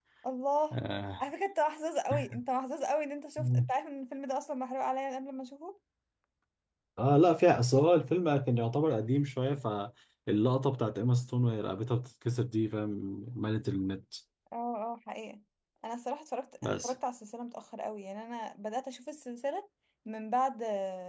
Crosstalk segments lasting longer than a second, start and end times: none

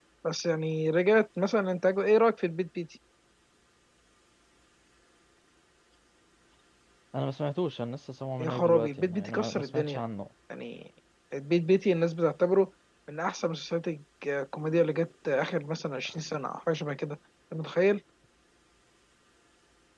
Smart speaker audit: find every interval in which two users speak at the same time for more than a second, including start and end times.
8.4-10.0

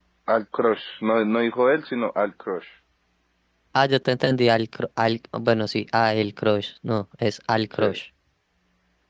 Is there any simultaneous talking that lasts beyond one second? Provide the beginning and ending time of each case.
none

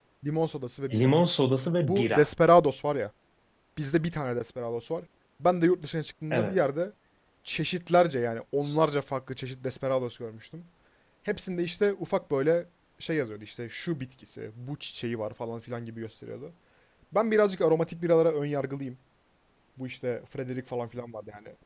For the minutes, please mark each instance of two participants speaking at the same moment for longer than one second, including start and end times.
none

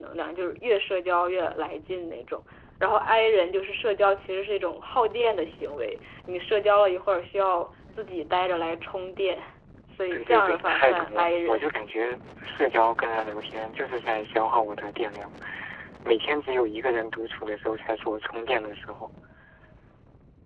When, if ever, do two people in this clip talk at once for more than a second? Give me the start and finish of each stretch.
10.1-11.6

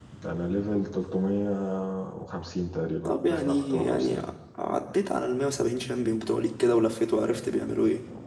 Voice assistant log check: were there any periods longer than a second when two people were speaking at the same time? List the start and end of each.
3.0-4.2

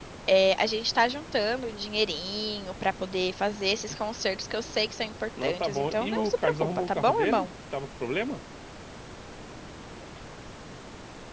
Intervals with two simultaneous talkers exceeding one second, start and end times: 5.4-7.5

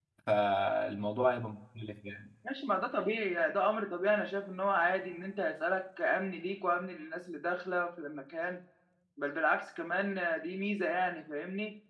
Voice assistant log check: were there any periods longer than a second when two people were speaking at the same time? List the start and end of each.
none

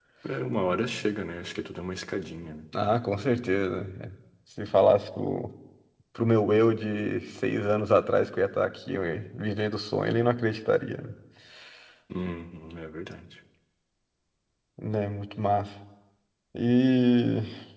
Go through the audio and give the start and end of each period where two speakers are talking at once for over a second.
none

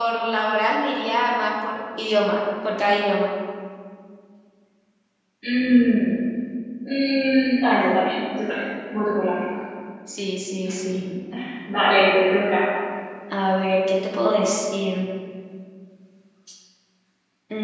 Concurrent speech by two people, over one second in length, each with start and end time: none

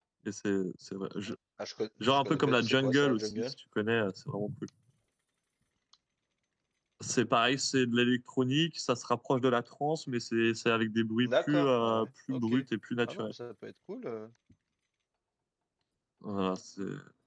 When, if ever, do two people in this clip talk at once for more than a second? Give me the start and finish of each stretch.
2.2-3.5, 11.2-12.5

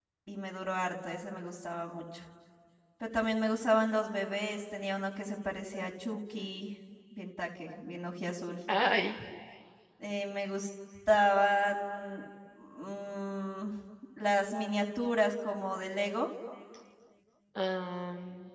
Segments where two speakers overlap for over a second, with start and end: none

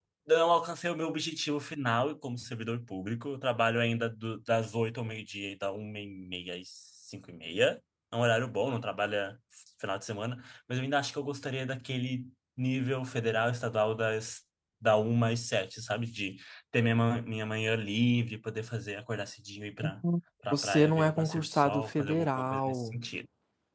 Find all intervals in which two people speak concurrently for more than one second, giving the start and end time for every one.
20.5-23.0

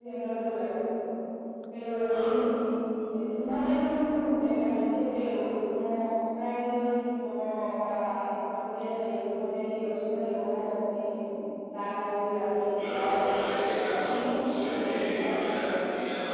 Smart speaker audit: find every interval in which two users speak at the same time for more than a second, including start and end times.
12.8-15.8

